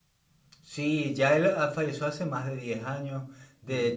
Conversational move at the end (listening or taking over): listening